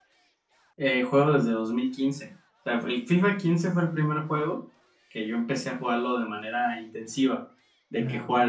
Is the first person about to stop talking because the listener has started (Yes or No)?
No